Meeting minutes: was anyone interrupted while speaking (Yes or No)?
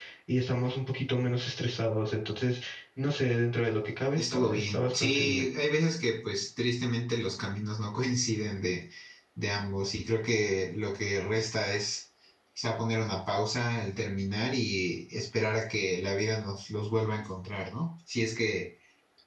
Yes